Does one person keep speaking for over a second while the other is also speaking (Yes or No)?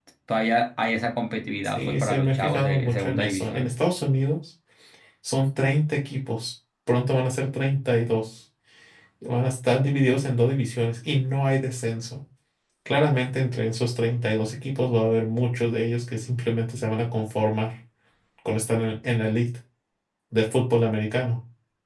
Yes